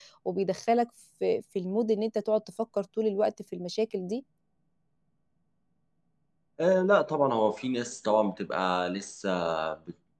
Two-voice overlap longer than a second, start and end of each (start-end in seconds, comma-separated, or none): none